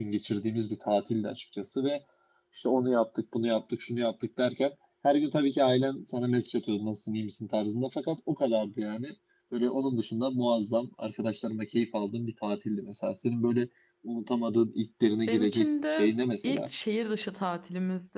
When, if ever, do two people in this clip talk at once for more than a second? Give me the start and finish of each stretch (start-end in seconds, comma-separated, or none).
15.3-16.7